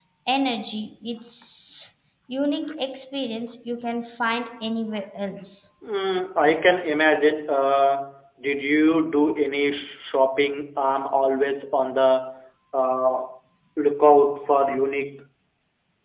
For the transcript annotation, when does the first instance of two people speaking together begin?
none

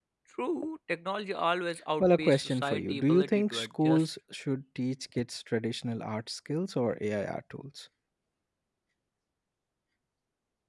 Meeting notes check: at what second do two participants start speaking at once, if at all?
2.0 s

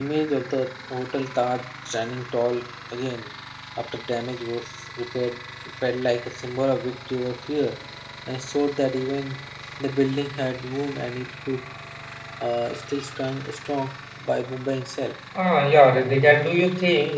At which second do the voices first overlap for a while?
none

